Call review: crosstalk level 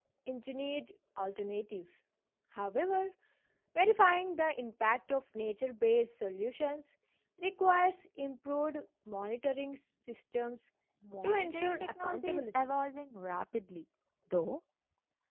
present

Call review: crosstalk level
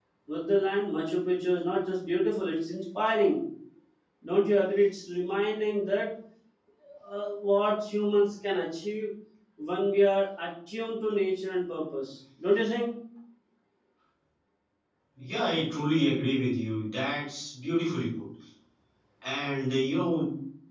none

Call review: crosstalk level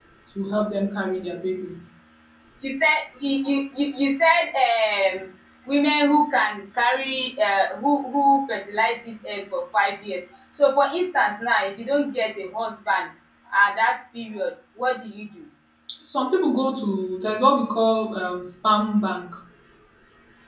none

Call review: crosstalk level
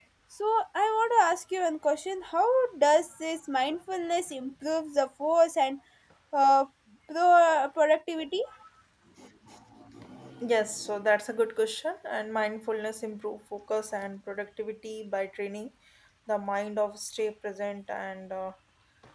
none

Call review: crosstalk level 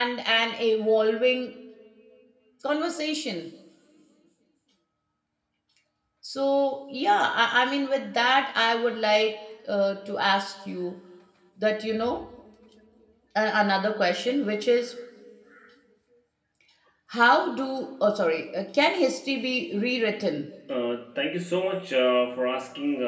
none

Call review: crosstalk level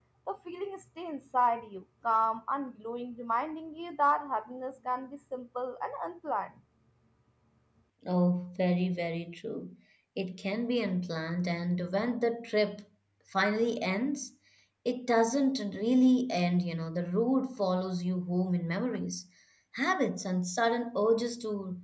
none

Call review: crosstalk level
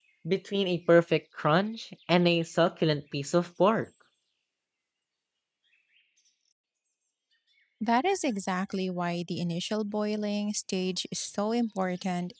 none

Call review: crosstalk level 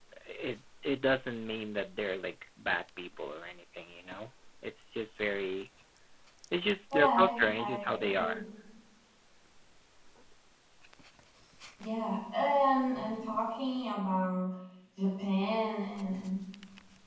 present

